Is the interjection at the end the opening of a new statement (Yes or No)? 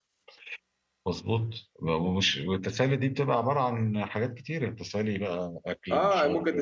Yes